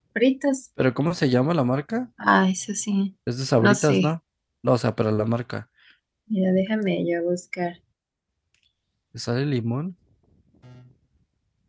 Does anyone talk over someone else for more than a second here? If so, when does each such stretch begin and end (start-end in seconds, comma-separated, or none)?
none